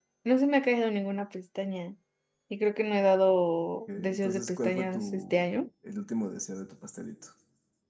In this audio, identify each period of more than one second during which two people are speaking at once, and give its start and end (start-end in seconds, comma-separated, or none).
3.9-5.5